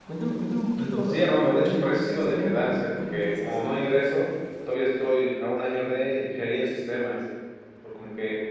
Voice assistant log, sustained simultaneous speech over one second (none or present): present